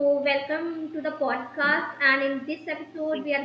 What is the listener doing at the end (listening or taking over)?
listening